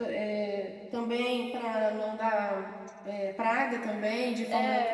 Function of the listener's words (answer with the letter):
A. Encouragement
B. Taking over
B